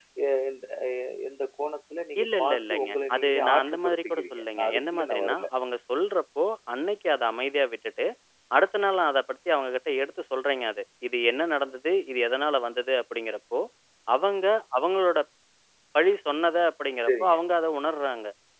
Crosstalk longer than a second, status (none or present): present